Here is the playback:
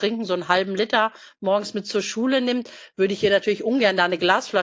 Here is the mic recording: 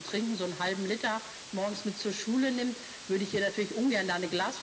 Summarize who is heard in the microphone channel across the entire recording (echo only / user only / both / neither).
echo only